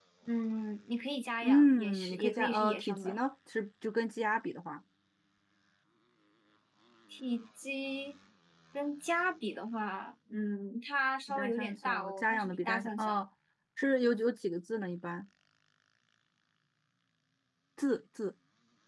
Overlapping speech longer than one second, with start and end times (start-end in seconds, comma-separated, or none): 1.4-3.2, 11.3-13.2